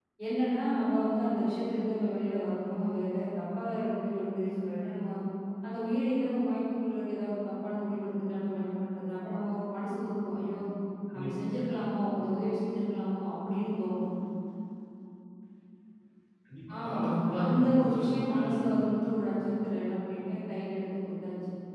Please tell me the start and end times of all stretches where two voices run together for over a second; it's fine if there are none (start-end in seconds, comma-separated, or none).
17.4-18.8